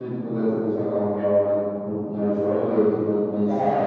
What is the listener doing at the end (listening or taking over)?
listening